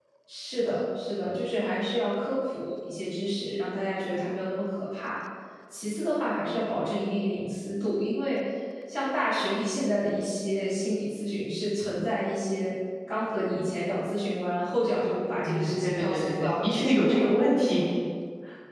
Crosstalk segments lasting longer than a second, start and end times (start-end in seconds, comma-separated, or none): 15.4-17.2